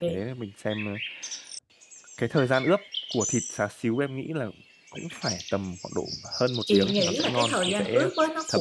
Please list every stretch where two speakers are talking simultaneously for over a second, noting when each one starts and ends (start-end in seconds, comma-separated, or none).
6.7-8.1